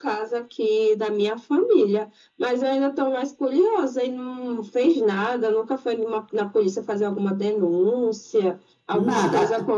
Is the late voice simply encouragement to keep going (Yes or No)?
Yes